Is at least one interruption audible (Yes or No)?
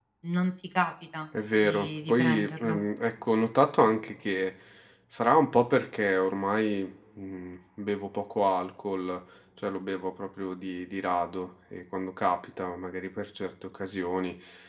Yes